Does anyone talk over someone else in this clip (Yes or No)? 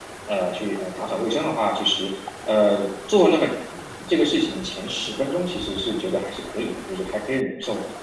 No